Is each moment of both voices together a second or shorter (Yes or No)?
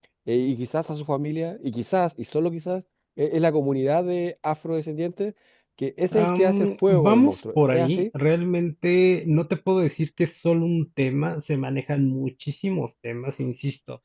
No